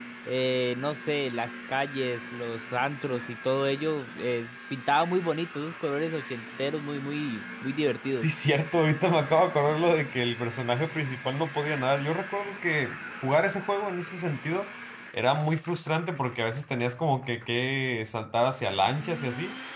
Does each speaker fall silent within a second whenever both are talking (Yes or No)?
Yes